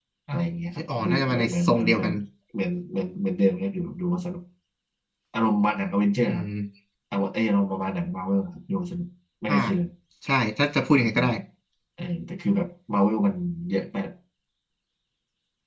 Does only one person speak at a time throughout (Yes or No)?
No